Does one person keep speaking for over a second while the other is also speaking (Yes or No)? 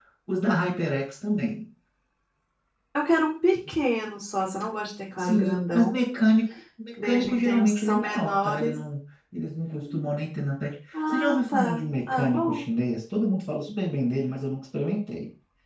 Yes